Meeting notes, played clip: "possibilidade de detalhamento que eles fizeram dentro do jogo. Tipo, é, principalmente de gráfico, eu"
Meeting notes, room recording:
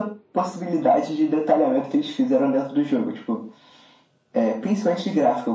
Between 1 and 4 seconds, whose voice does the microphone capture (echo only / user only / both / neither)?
echo only